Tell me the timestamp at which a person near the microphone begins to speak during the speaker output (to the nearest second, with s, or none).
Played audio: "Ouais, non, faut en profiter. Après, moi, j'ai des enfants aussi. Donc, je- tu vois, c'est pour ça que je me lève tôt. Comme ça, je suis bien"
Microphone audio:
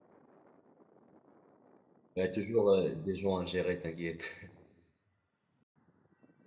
2 s